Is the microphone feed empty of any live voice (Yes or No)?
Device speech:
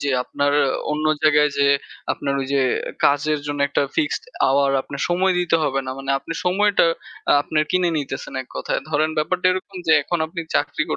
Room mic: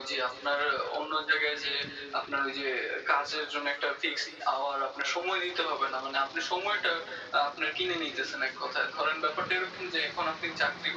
Yes